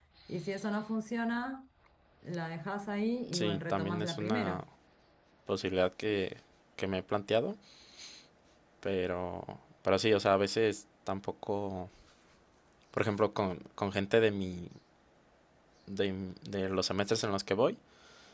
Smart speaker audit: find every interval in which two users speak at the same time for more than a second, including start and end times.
3.3-4.6

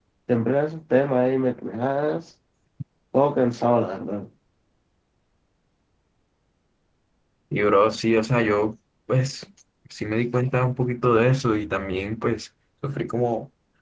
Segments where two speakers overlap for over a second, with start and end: none

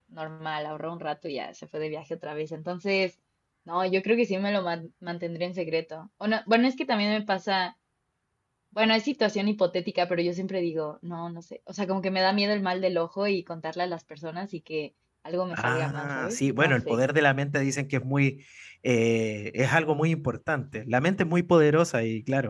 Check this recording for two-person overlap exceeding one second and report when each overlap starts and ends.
15.5-17.0

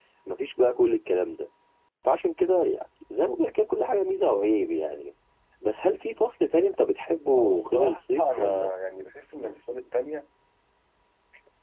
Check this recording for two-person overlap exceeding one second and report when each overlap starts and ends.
7.4-8.7

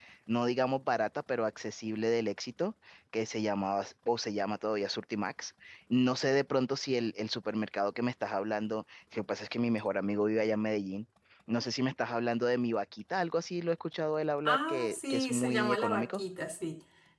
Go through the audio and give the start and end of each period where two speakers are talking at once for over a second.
14.4-16.2

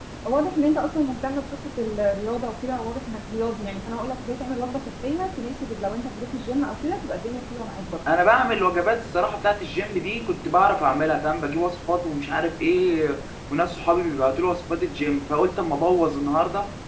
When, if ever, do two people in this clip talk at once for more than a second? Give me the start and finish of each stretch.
none

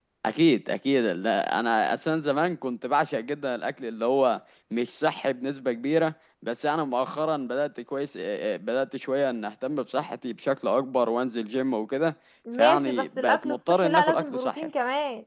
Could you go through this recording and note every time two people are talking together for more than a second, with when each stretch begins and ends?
12.6-14.7

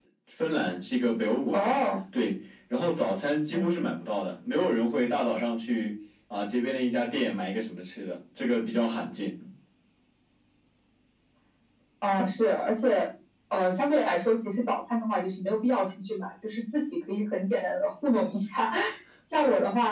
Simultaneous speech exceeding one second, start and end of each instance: none

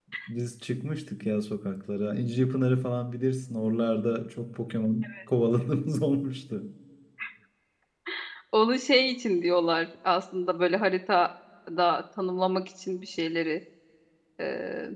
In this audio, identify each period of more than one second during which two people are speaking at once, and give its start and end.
none

